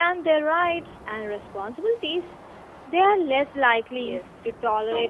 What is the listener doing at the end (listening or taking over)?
taking over